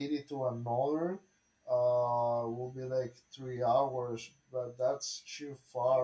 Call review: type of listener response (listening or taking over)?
taking over